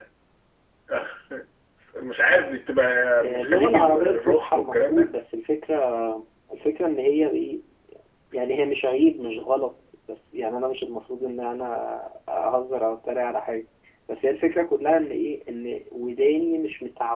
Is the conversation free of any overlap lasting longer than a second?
No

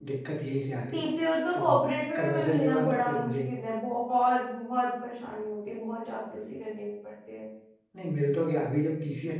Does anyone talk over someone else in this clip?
Yes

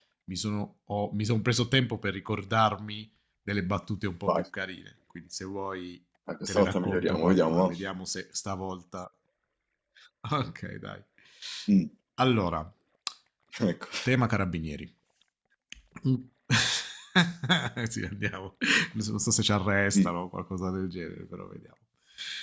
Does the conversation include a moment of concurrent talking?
Yes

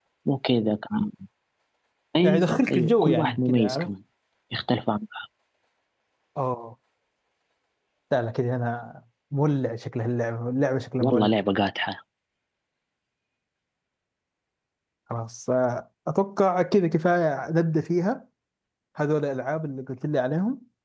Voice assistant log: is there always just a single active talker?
No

